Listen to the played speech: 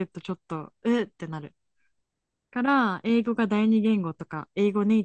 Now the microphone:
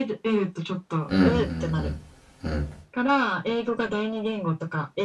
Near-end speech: present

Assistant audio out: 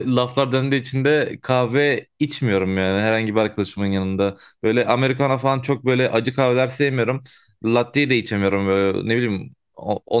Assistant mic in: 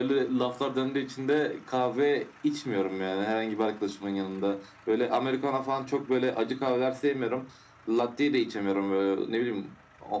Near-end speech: none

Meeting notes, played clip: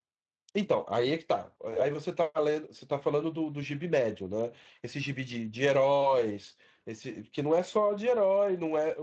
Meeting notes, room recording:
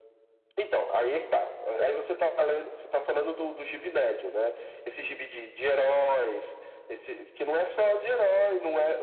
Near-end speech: none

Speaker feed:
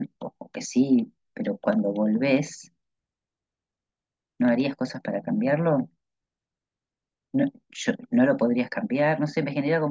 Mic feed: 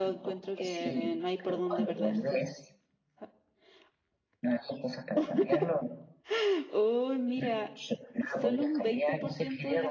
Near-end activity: present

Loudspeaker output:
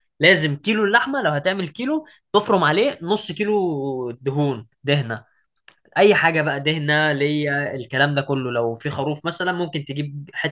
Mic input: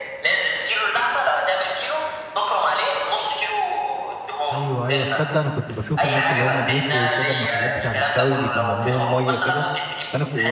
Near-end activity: present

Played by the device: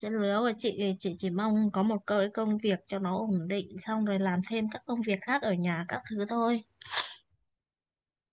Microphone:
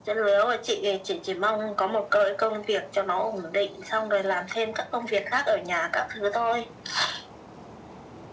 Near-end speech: none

